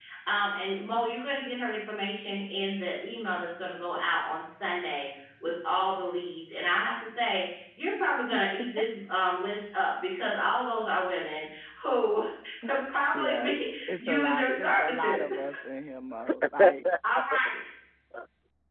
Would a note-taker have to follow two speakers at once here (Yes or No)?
Yes